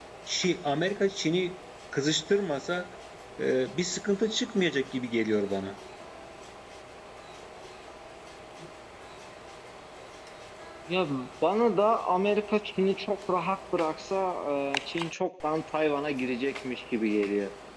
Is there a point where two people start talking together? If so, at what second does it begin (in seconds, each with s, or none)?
none